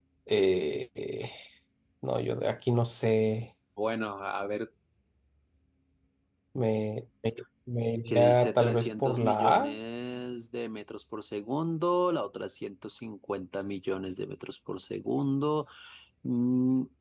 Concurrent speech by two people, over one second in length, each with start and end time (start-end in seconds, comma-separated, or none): 8.1-9.8